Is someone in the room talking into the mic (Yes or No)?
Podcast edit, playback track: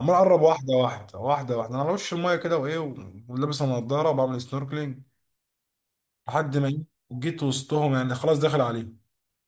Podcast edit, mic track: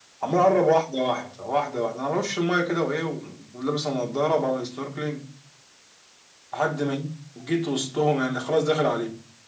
No